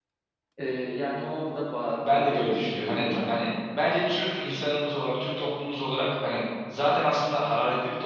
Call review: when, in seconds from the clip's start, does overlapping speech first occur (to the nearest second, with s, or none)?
2 s